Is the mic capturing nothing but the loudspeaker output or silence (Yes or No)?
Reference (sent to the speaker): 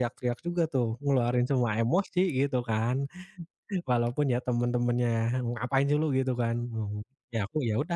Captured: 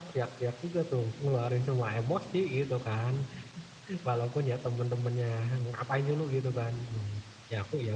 Yes